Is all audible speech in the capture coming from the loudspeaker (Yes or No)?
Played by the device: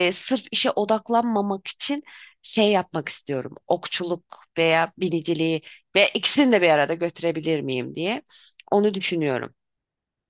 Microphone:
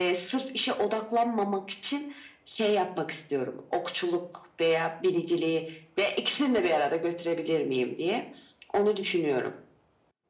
Yes